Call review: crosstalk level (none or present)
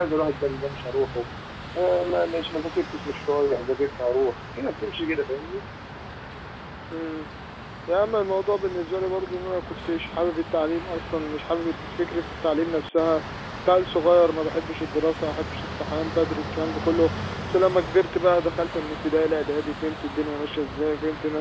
none